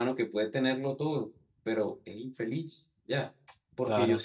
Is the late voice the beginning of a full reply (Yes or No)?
No